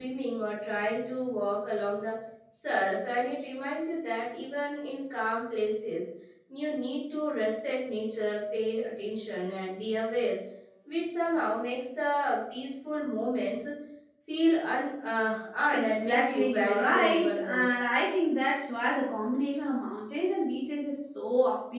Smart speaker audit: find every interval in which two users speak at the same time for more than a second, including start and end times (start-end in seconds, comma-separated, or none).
15.7-17.6